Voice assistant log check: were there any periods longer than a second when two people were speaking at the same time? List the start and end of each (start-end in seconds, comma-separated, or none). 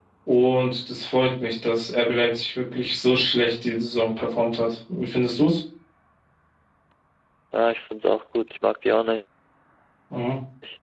none